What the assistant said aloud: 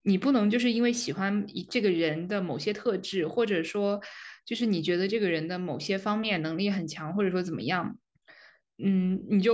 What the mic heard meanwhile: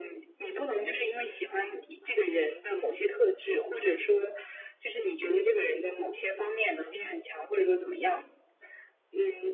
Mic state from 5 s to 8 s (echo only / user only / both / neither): echo only